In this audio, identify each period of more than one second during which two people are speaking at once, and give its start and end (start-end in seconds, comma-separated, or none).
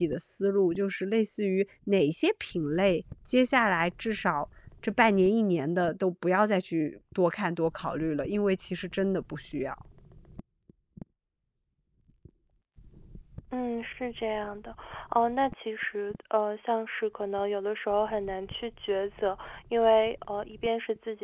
none